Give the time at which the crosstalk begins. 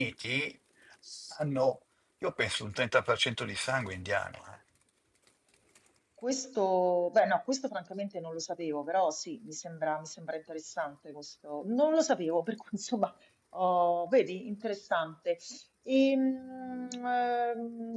none

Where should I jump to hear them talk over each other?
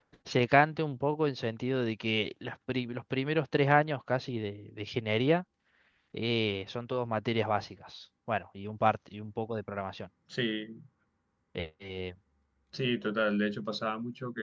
none

